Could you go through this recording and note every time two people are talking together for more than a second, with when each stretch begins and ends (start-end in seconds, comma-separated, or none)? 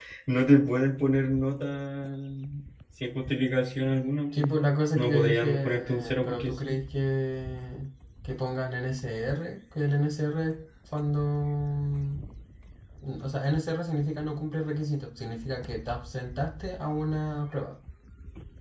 4.9-6.8